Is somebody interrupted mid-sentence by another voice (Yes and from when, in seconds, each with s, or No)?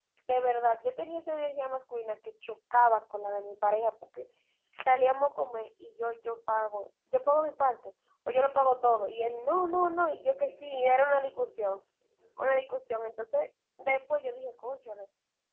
No